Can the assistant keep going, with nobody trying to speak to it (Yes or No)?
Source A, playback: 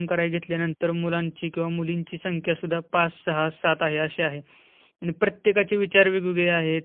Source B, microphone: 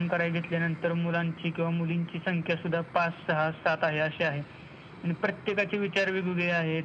Yes